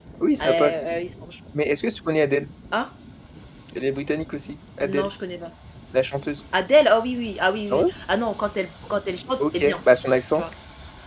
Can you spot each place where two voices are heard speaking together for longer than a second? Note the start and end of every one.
none

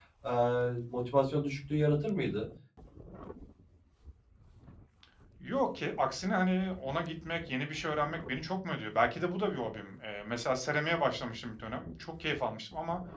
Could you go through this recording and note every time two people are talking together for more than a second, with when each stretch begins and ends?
none

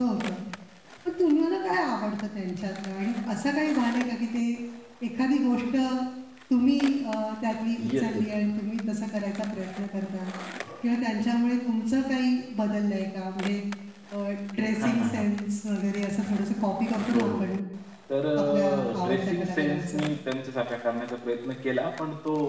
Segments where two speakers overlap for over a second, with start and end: 18.4-20.0

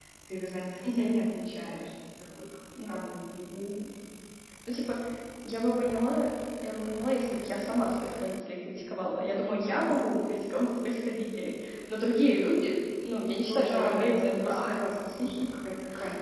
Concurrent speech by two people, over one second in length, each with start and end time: 13.4-14.7

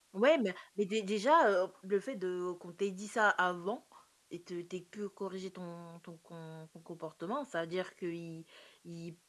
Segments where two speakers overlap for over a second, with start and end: none

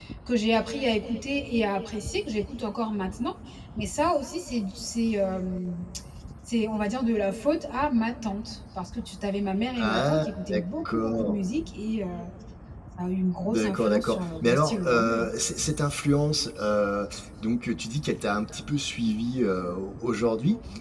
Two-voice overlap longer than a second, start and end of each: 9.8-11.4, 13.4-15.3

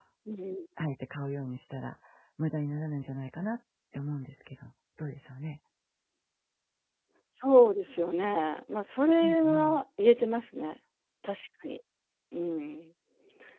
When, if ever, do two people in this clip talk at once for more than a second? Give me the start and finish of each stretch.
none

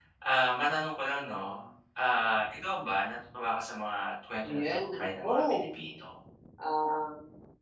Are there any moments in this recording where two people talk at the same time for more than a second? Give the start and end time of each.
4.4-5.7

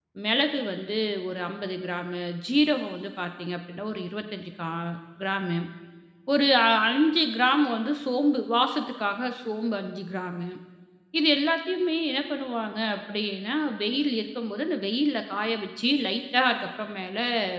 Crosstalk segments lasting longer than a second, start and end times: none

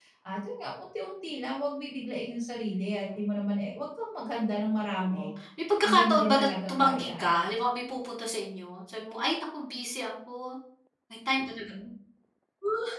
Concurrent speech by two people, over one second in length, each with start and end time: 5.8-7.3

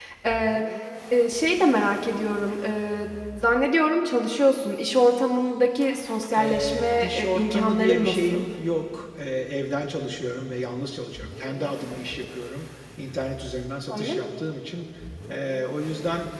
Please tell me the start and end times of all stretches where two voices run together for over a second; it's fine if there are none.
6.4-8.5

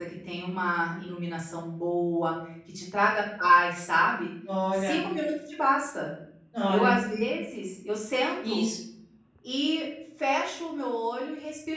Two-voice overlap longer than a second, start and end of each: none

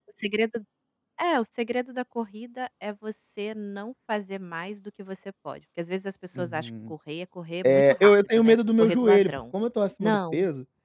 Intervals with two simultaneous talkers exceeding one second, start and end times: 7.7-9.4

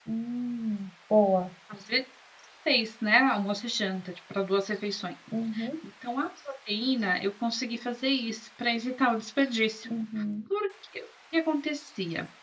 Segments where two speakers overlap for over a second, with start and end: none

